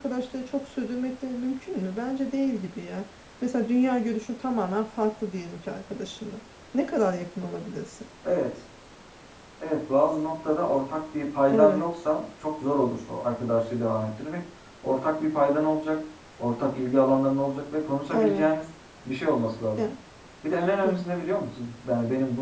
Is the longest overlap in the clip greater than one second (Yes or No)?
No